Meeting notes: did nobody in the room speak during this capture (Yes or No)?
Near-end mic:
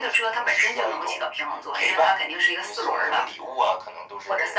Yes